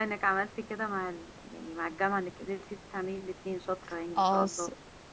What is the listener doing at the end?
taking over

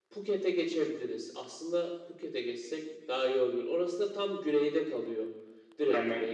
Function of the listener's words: taking over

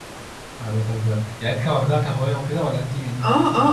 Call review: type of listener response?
taking over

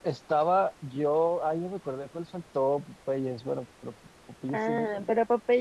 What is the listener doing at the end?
taking over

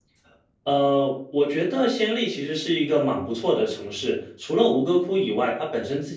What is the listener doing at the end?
listening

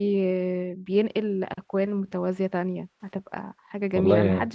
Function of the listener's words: listening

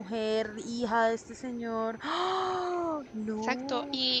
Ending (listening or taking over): taking over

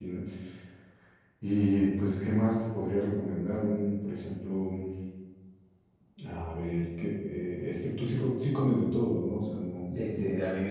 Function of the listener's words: taking over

